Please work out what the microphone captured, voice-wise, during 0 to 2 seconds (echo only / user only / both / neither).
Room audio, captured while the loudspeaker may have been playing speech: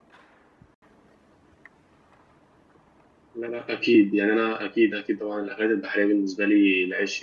neither